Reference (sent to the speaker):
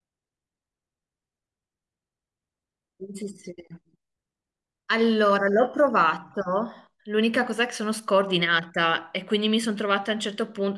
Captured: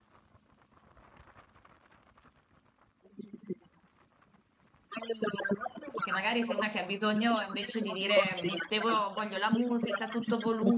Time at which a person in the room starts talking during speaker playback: 6.0 s

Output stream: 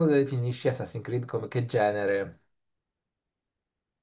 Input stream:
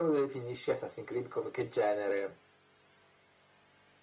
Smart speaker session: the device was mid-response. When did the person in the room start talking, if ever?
none

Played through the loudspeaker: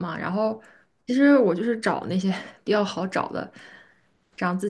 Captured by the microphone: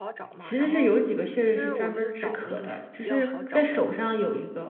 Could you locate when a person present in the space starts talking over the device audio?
0.4 s

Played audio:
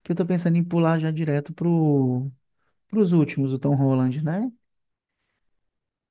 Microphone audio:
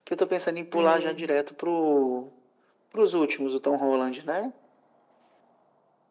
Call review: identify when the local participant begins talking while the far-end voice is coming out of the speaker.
0.7 s

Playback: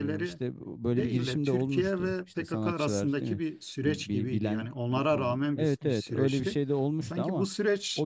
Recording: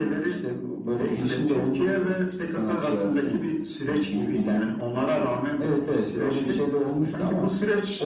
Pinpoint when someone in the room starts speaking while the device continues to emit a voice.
none

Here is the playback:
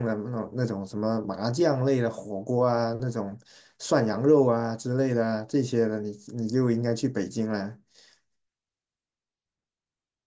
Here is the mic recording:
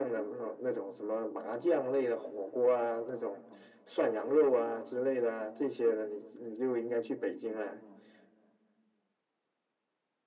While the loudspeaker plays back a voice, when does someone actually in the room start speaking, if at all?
none

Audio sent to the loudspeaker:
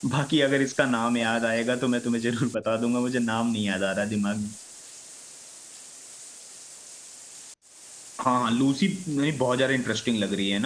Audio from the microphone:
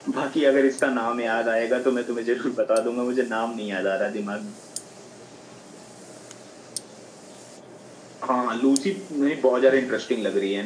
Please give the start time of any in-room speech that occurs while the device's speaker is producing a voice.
none

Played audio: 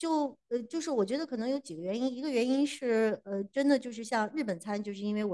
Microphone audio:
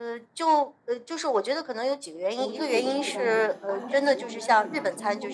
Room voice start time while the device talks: 2.3 s

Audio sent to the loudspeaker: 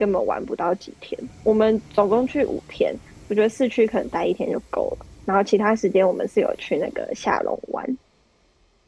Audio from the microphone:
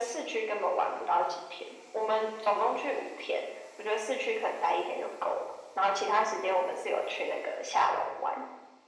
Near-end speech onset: none

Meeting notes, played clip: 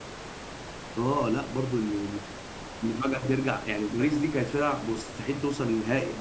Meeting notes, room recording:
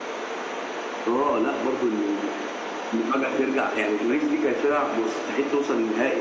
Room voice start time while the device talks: none

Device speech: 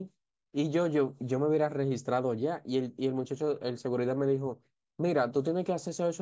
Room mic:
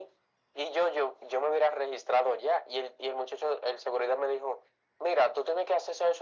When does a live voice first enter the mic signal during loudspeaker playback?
none

